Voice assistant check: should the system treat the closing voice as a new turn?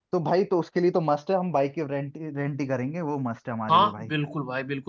Yes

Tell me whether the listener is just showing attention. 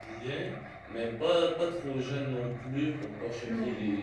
Yes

